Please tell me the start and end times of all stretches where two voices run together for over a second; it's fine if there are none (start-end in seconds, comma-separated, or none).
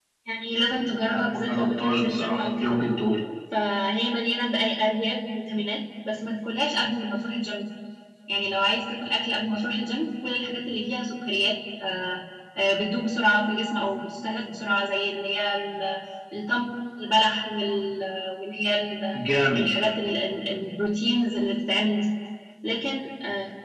1.1-2.8